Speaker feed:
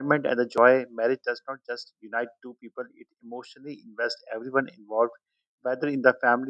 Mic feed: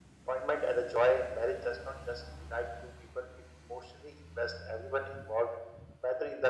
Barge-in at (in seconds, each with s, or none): none